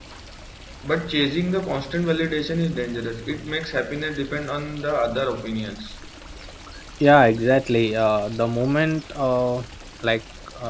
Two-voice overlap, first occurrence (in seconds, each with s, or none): none